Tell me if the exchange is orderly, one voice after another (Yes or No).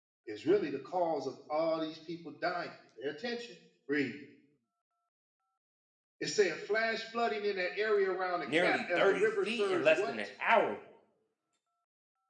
No